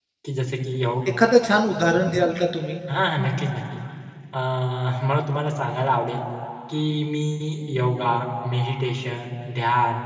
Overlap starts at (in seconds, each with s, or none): none